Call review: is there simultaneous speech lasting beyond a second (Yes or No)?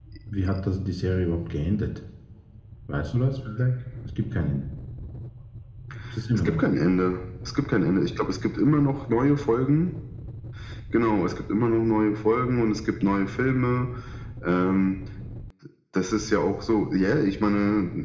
No